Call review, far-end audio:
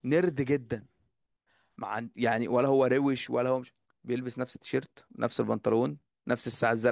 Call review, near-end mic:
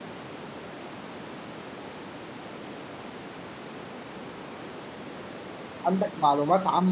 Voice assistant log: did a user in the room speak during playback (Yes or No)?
Yes